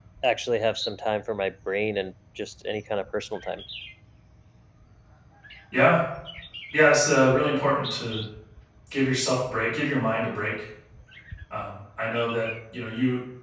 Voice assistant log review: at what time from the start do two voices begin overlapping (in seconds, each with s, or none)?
none